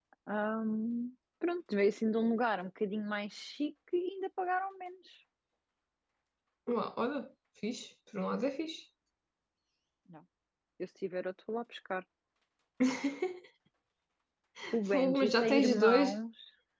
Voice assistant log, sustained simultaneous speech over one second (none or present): present